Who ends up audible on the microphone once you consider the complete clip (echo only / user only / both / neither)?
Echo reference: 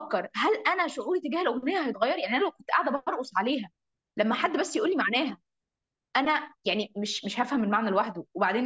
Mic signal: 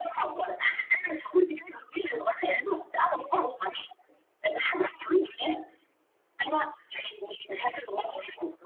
echo only